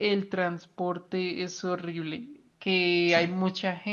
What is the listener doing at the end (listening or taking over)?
listening